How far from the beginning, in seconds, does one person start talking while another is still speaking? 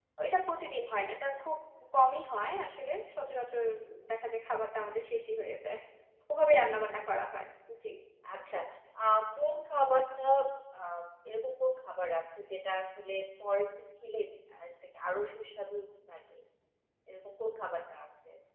none

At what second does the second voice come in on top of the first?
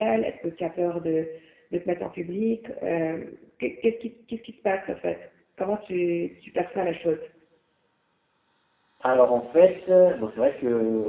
none

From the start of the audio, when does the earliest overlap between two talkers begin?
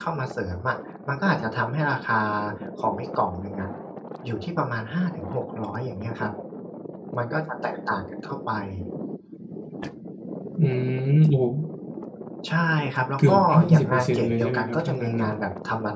13.3 s

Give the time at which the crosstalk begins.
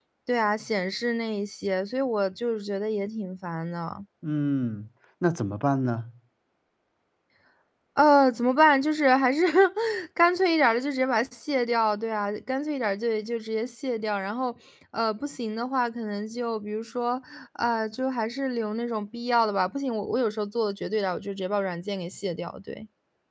none

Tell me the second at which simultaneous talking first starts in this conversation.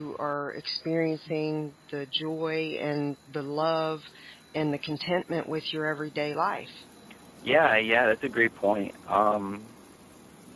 none

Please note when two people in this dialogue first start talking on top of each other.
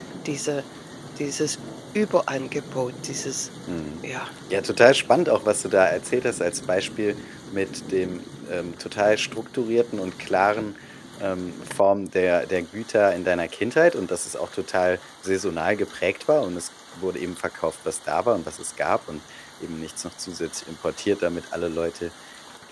none

